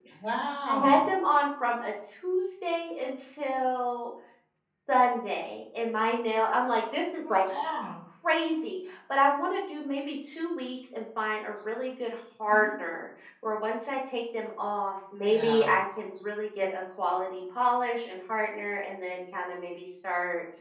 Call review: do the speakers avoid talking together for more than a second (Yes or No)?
Yes